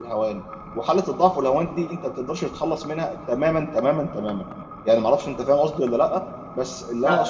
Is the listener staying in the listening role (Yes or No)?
Yes